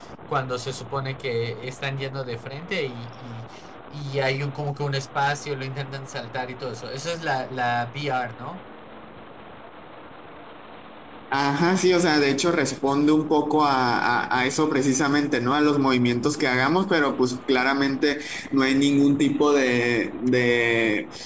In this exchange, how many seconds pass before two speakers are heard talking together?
none

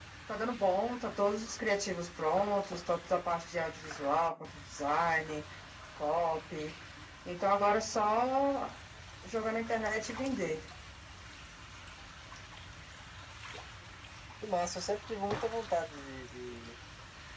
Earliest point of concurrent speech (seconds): none

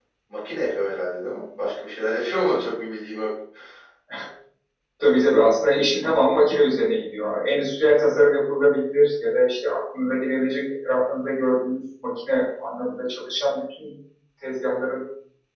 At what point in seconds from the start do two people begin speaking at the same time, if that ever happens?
none

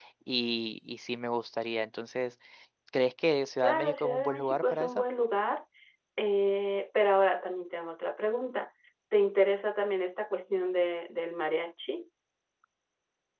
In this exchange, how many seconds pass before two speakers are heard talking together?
4 s

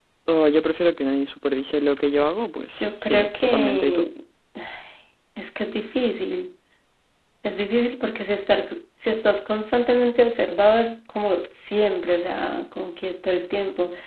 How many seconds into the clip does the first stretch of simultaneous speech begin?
3 s

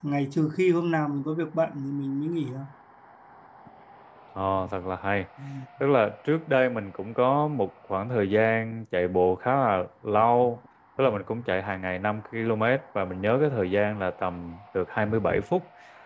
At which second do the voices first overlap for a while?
none

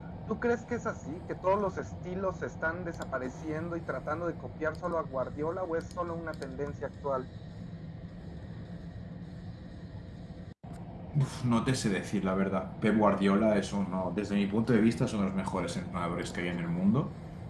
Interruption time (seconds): none

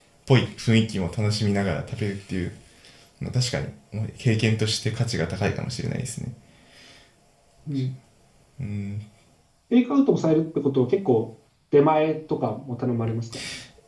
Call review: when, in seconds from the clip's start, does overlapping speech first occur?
none

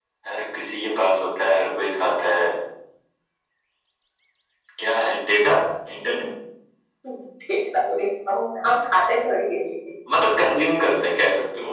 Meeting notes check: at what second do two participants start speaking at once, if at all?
none

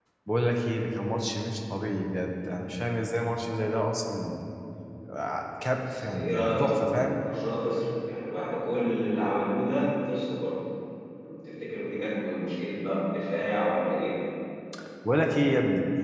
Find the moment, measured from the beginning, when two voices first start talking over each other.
6 s

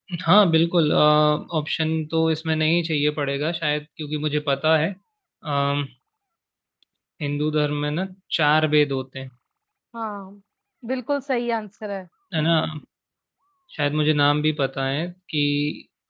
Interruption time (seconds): none

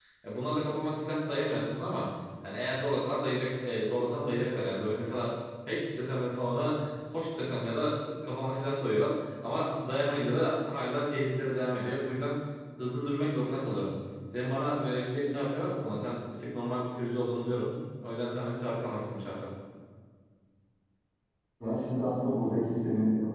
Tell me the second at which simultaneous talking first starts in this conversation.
none

